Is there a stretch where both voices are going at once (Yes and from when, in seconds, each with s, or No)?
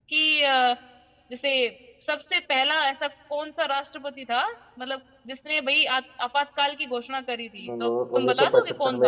Yes, from 7.6 s